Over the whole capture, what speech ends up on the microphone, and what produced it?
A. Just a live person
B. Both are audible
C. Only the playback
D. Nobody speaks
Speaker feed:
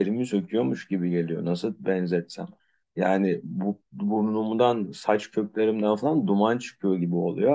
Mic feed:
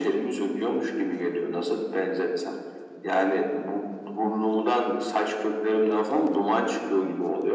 C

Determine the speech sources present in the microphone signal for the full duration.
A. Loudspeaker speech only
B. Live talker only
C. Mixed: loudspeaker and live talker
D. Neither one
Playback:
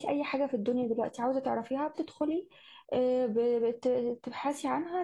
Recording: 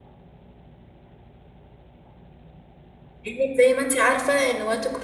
B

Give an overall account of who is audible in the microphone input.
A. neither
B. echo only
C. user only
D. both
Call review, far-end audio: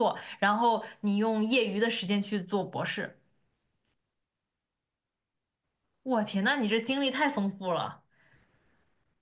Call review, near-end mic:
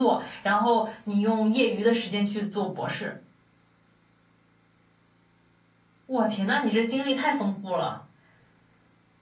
B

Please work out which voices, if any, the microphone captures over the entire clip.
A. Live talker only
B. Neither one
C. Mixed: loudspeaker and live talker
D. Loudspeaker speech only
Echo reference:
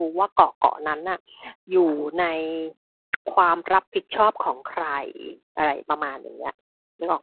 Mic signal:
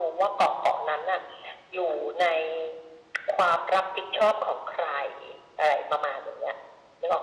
D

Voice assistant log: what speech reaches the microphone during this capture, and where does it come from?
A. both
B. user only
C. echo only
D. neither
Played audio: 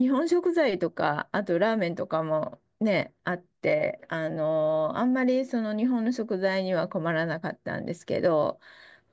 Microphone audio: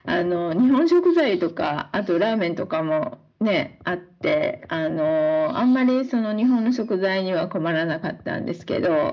C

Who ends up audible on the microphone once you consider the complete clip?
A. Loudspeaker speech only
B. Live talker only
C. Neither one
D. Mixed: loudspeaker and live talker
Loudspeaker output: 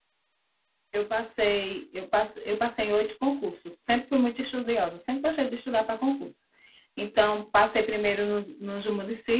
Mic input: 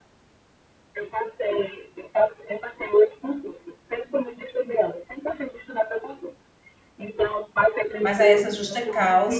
D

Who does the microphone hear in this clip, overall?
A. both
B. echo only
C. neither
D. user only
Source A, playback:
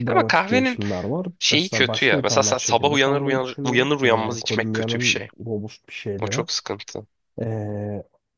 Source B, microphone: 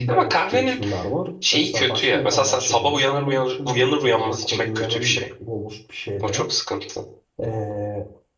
B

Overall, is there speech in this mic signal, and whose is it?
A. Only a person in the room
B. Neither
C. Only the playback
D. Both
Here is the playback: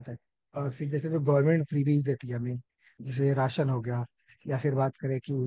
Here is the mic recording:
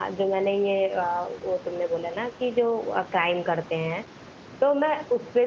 A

